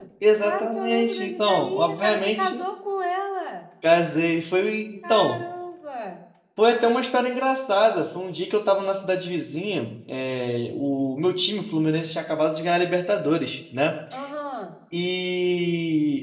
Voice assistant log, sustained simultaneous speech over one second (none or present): present